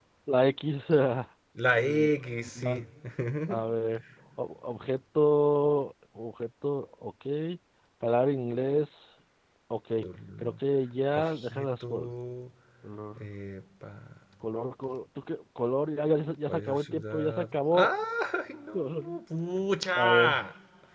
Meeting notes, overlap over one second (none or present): present